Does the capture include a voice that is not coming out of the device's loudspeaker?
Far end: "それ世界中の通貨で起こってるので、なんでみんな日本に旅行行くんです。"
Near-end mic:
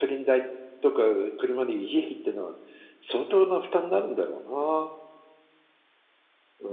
Yes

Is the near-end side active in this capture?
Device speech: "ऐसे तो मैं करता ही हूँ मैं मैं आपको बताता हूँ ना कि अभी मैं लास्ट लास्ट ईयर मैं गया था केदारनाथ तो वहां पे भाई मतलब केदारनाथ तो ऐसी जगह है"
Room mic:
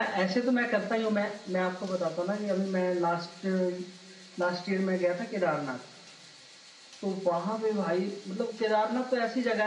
No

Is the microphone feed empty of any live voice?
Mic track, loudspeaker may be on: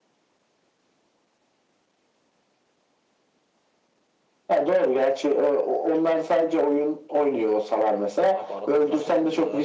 No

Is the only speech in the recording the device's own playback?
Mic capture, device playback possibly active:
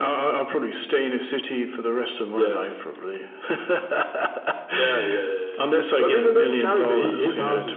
Yes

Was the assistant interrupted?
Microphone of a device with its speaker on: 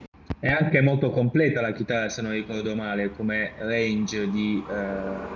Yes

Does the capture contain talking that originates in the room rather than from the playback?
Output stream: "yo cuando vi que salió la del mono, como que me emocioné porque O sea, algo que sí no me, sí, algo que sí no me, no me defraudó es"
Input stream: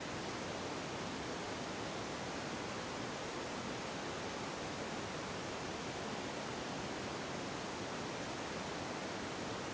No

